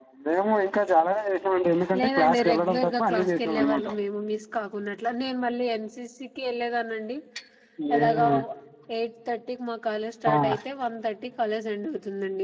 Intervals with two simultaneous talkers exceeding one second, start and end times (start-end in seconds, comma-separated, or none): 2.0-3.9